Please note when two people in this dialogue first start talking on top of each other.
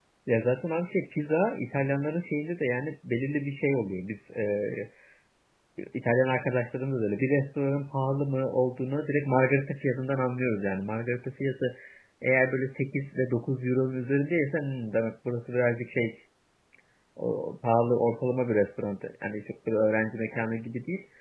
none

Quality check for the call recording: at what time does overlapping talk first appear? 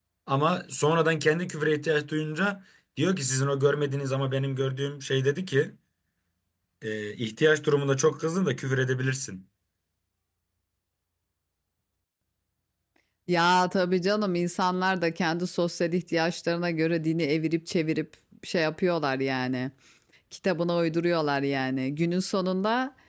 none

